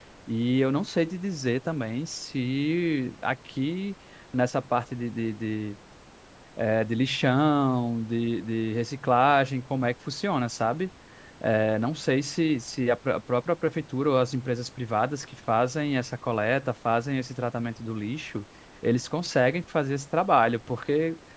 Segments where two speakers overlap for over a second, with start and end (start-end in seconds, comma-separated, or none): none